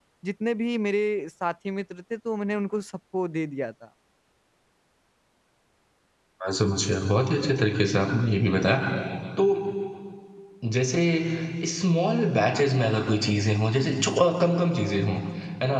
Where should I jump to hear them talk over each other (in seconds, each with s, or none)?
none